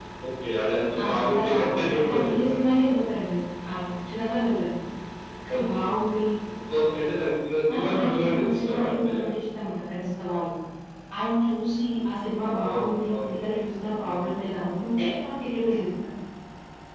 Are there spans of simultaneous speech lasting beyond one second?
Yes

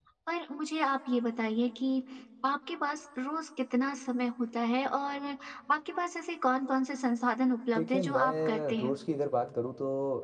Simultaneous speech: Yes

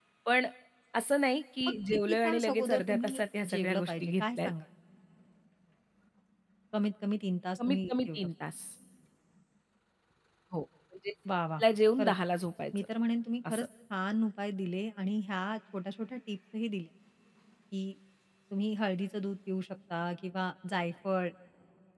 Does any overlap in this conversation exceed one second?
Yes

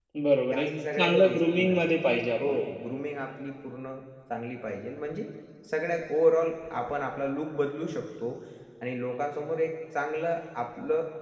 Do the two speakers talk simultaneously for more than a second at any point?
Yes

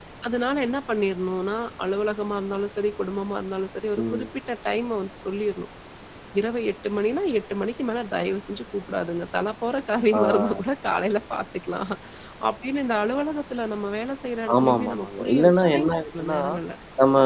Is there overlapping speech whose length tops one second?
Yes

